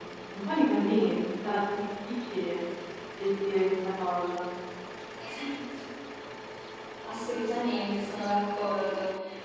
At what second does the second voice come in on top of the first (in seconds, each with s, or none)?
none